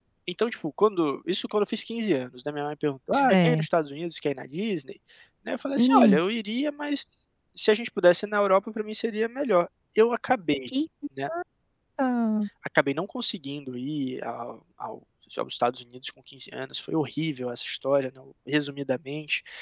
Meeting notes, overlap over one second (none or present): none